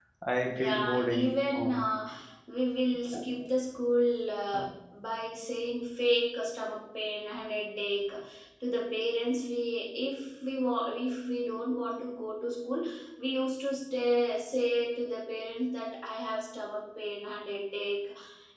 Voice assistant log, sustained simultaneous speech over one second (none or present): present